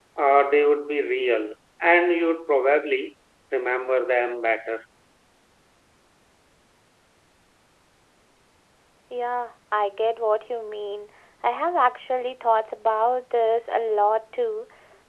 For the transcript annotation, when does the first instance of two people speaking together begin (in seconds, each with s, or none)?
none